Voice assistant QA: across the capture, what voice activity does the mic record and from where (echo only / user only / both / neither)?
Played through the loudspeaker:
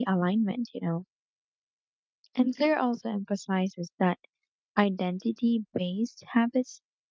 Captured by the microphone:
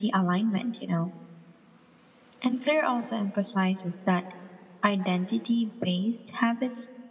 echo only